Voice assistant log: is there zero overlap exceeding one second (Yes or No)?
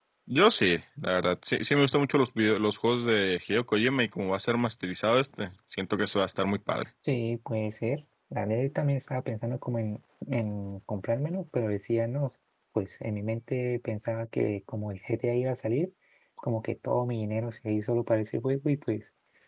Yes